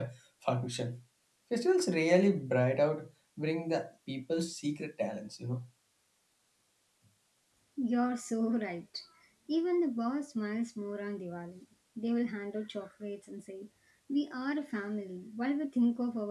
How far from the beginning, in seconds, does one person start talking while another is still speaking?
none

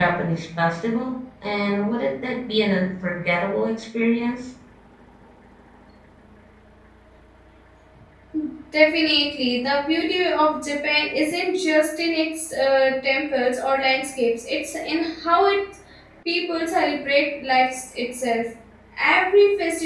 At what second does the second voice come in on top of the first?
none

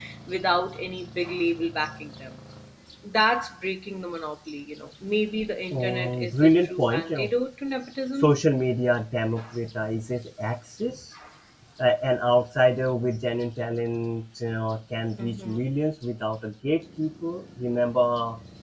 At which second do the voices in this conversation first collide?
6 s

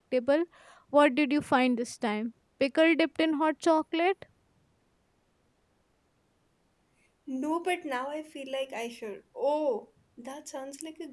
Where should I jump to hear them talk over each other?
none

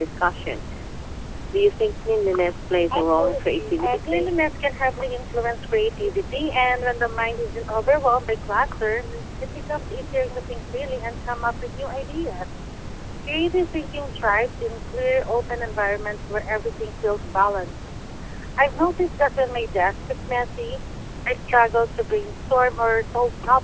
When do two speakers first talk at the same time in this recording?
3 s

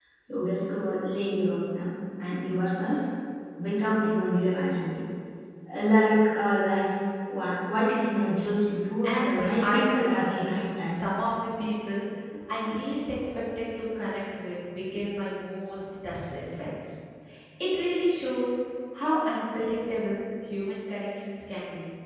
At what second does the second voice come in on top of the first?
9 s

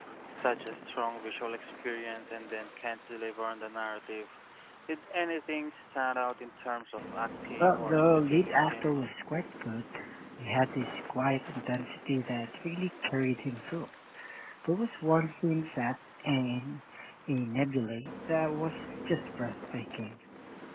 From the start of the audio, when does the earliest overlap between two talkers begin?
8 s

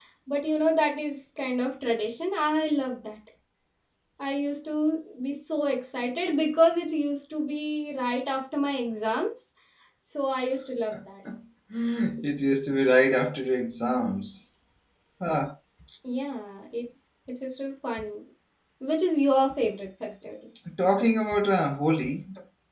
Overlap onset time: none

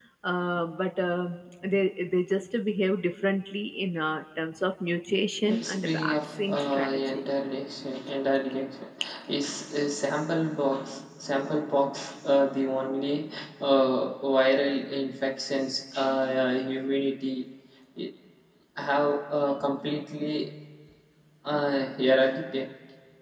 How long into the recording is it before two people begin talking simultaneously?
5 s

